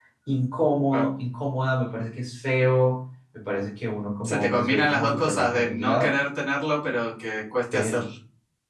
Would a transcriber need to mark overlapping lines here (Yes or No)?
Yes